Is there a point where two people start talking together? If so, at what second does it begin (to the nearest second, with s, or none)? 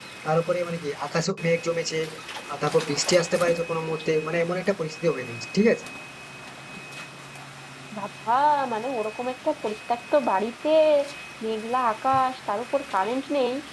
none